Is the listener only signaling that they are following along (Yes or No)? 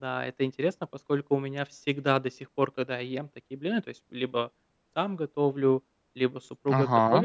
Yes